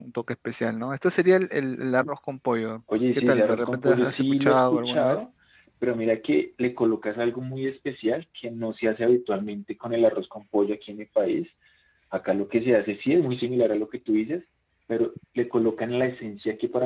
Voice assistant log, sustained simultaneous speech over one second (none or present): present